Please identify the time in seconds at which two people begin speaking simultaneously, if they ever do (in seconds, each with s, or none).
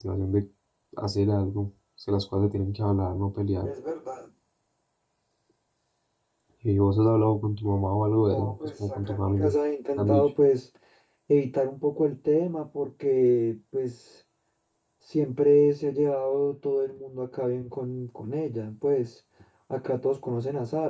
8.2 s